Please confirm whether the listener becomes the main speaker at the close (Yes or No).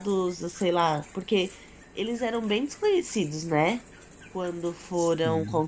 No